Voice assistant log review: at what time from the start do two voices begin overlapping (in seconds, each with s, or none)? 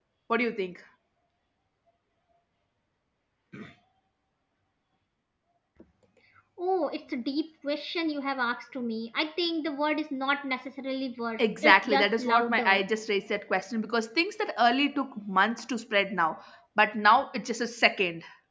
11.4 s